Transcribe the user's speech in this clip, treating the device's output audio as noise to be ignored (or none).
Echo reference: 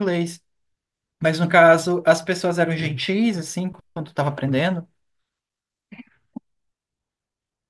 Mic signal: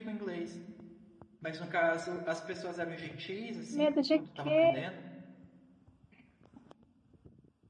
Medo de quê?